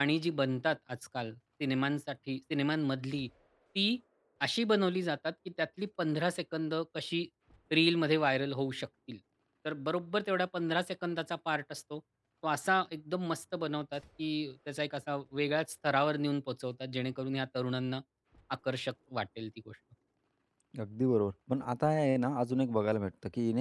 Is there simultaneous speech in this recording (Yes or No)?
No